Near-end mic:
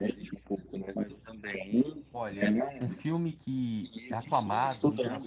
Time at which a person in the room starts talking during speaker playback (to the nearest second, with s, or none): 2 s